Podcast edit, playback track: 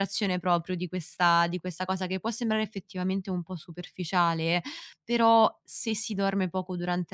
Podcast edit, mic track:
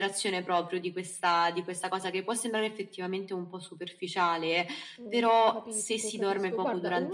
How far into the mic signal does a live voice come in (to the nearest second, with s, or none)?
5 s